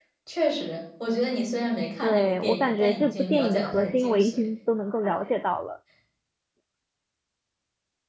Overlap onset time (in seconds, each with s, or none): 2.0 s